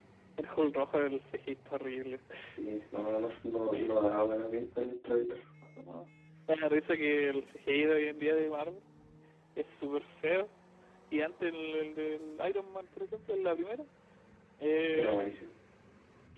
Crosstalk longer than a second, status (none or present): none